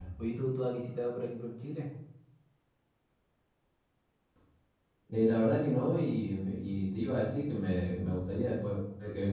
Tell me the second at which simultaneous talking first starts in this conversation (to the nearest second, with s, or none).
none